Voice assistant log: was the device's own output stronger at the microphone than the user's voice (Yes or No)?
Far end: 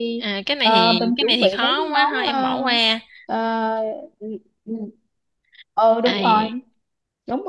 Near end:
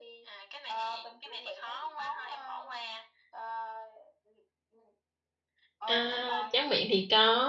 No